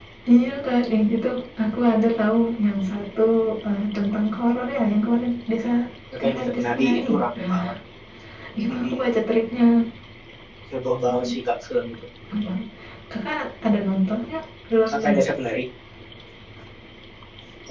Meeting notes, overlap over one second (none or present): present